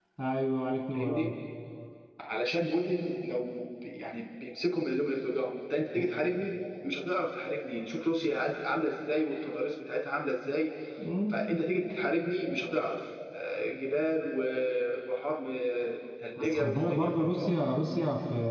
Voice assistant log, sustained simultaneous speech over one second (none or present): present